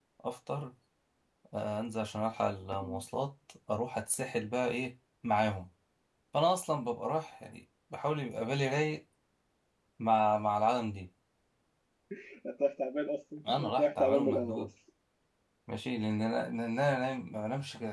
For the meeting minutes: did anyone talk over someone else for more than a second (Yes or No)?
Yes